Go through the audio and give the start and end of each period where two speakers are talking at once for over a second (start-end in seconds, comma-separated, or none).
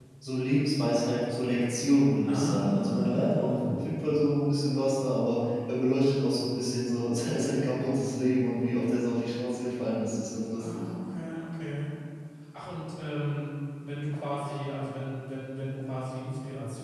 2.2-3.8